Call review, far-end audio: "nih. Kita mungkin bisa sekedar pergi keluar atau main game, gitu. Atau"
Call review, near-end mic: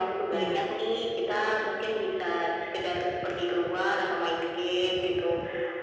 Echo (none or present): present